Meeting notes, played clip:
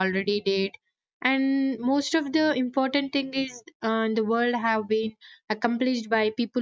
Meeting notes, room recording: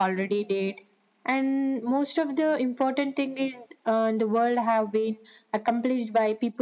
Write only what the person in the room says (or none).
none